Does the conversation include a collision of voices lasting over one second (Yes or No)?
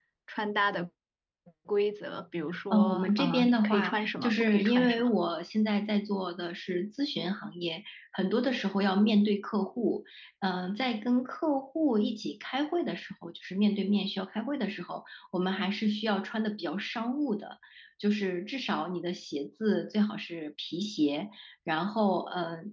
Yes